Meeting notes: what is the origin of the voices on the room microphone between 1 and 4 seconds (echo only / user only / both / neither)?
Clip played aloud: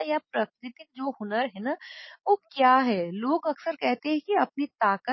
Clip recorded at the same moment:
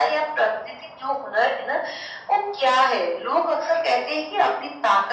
echo only